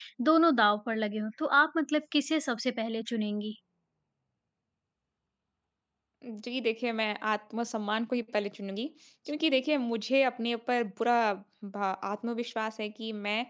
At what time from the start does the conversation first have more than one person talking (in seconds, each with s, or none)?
none